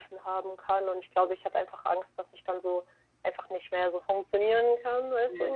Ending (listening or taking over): taking over